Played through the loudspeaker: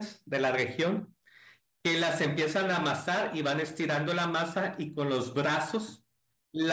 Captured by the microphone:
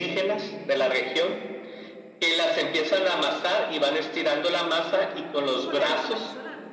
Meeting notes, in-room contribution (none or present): present